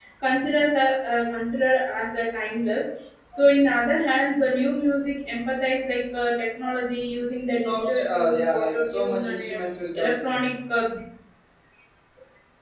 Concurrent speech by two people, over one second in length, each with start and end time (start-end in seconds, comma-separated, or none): 7.6-9.6